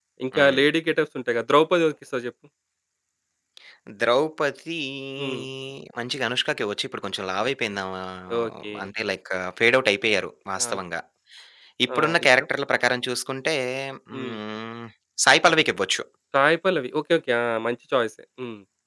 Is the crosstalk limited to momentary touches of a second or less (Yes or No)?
Yes